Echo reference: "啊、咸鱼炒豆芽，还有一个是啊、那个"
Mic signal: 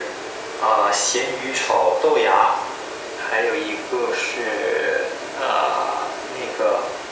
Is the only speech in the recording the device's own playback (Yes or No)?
Yes